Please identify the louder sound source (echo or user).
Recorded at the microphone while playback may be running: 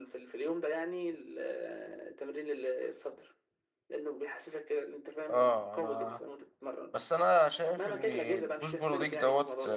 user